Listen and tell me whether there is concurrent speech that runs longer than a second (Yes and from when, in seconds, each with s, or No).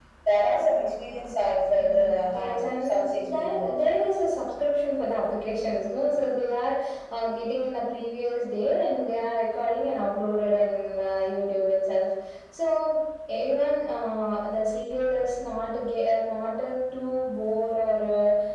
Yes, from 1.7 s